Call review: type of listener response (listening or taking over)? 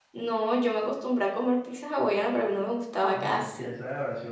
taking over